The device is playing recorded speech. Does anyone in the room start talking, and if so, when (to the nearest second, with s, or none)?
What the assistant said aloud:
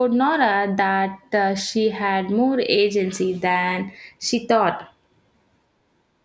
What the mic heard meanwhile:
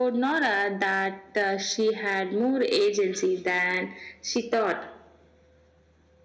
none